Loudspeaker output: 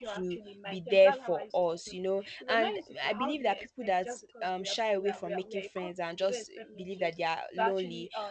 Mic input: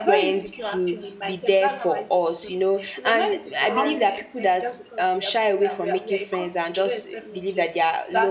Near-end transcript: yes,

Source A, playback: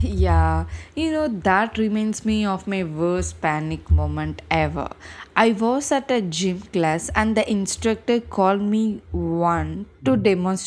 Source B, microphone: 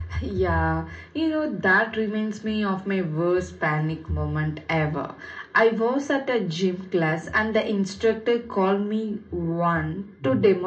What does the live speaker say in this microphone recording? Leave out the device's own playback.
none

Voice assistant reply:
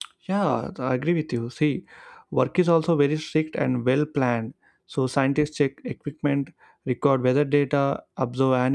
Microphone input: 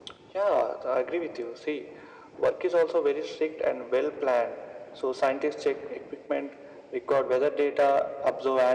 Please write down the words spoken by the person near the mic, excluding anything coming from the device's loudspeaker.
none

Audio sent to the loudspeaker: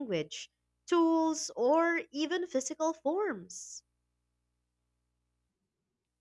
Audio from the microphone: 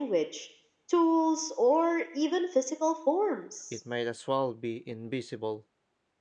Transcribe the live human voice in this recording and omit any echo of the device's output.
it might as well be invisible.

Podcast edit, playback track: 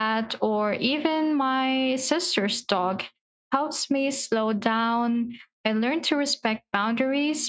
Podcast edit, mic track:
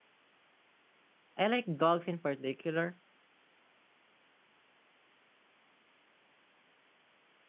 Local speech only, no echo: I like dogs in particular

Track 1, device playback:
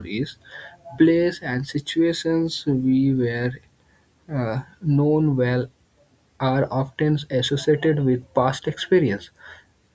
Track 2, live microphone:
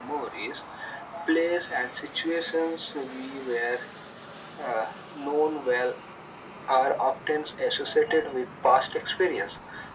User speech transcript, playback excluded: none

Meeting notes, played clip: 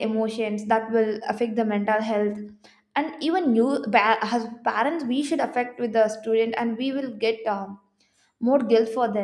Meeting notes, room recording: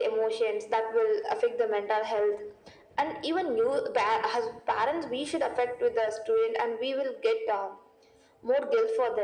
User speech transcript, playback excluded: none

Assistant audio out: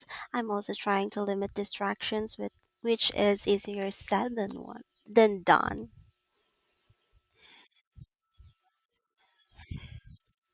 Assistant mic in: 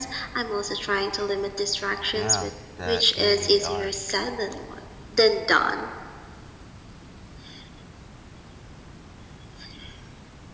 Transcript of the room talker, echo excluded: Yeah, that they really are.

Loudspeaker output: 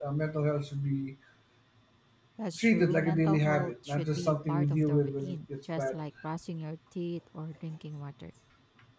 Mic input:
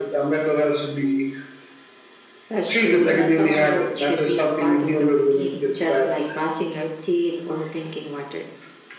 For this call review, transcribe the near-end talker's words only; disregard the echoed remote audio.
none

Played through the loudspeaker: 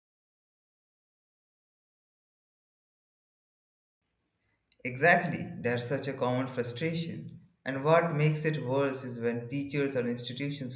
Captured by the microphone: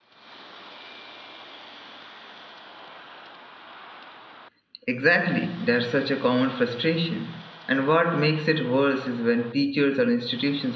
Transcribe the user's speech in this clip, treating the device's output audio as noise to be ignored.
none

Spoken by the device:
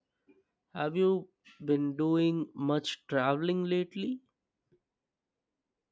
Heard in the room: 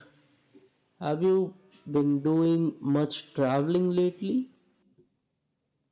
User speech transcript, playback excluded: none

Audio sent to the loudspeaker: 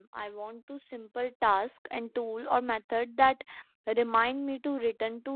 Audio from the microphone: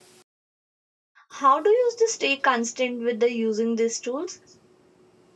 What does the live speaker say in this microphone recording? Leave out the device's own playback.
how do you s- stay constant with the using these tools

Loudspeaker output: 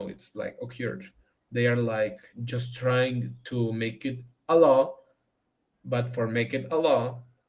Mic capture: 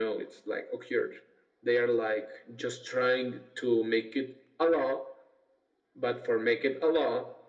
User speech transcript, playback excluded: none

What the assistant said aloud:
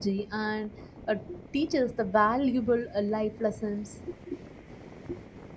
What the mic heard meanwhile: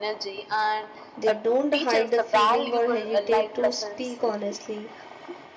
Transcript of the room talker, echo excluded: they don't hide the feeling or hesitate to speak honestly

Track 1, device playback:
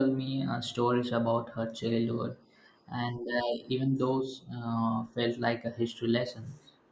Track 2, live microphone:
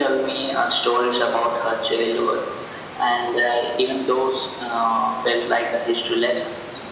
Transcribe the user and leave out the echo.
none

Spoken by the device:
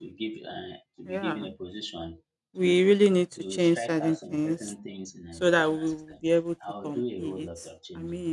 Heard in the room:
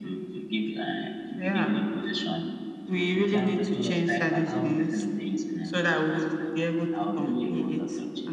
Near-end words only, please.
the jam and all of the I will

